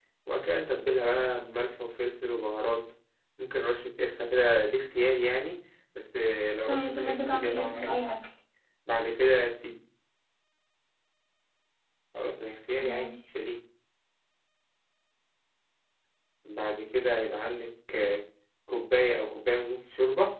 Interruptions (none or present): present